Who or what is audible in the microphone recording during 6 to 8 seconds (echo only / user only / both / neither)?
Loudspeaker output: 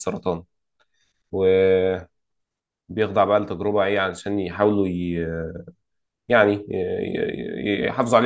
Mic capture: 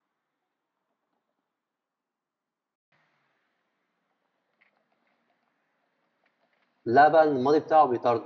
user only